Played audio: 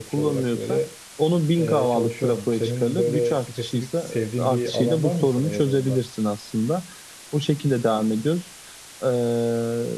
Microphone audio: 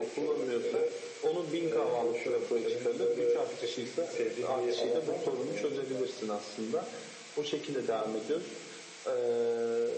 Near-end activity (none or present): none